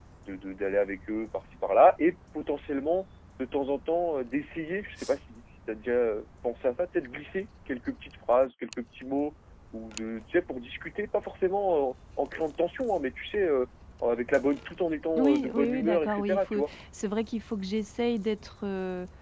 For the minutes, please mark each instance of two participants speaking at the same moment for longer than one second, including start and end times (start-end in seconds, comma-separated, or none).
15.2-16.6